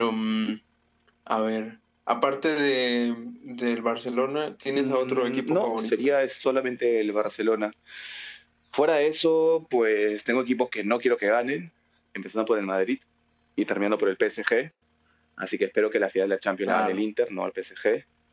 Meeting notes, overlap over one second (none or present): present